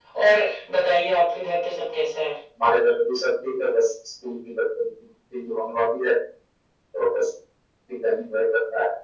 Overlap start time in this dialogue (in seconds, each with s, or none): none